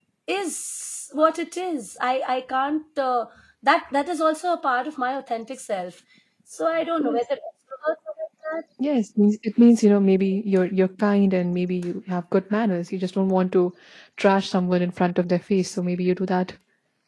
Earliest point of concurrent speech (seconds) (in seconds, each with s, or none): none